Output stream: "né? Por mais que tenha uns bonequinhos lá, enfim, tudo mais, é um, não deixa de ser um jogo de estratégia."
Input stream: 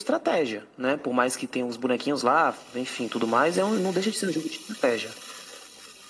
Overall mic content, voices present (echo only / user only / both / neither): echo only